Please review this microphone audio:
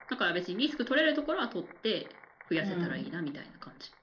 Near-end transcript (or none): うん。